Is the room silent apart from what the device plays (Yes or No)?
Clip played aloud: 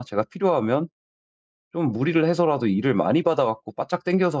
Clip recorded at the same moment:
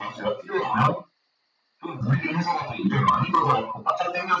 Yes